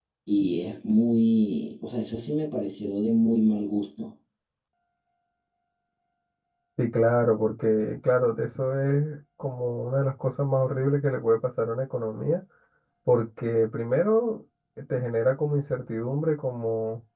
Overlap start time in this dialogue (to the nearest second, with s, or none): none